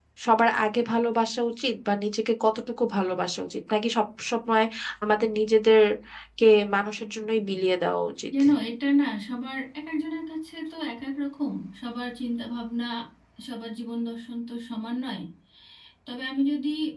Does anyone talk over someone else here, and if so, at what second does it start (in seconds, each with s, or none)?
none